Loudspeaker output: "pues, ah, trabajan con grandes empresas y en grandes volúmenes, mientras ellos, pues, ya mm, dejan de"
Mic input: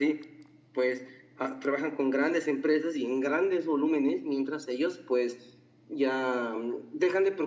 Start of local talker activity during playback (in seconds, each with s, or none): none